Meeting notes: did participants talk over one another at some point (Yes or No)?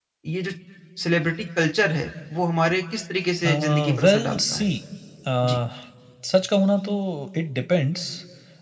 Yes